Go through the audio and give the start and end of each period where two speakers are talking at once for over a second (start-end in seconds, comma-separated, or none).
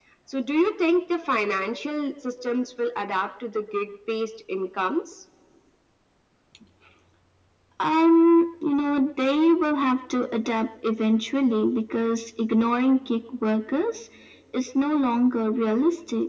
none